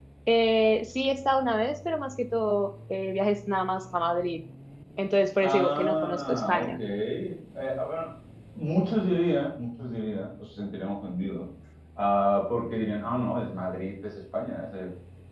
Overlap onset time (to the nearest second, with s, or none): 5 s